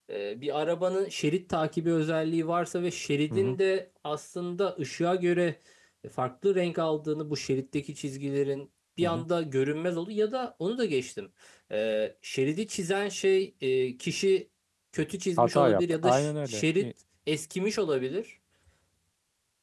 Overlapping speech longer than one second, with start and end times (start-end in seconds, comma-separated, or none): 15.4-16.9